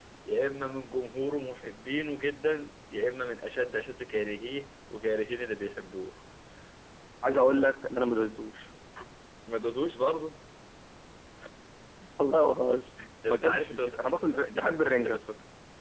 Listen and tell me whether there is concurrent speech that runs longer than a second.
Yes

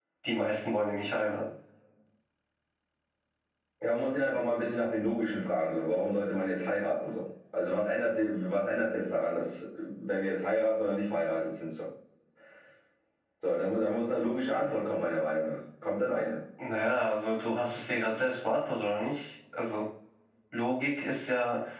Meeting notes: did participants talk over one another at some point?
No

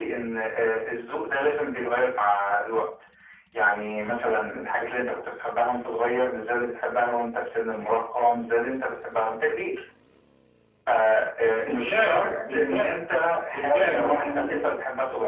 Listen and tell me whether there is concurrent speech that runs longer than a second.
Yes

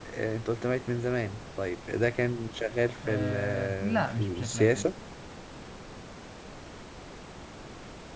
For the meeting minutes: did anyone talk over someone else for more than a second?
Yes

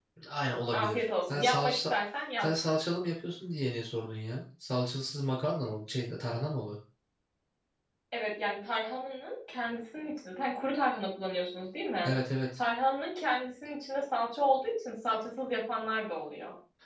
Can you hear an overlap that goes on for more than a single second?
Yes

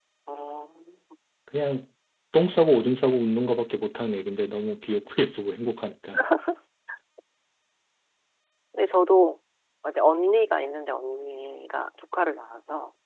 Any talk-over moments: No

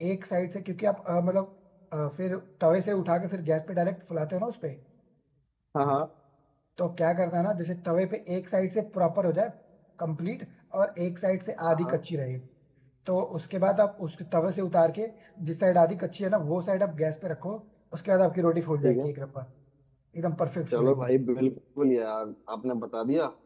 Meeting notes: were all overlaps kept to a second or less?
Yes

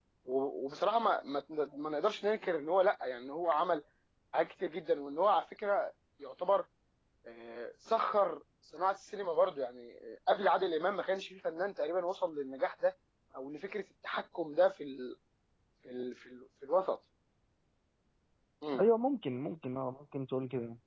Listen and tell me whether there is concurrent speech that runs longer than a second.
No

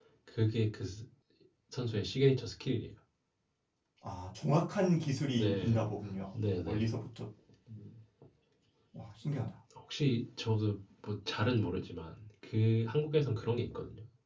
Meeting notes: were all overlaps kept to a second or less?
Yes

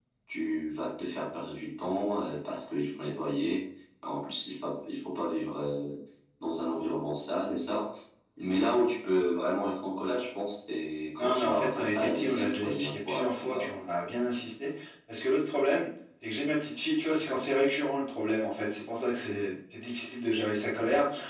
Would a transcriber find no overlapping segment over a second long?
No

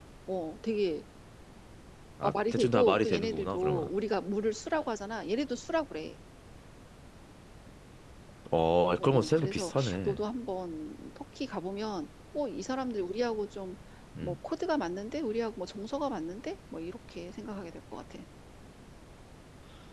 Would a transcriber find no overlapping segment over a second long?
No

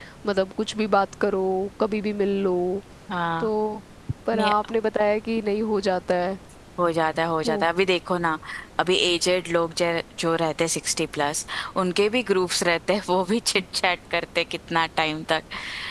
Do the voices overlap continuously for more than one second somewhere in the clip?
No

